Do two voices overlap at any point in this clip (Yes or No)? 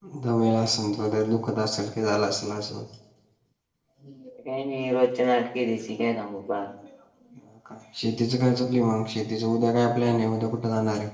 No